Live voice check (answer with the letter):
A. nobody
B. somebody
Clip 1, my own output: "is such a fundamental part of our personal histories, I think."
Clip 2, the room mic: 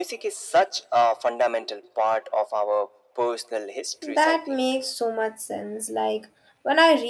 B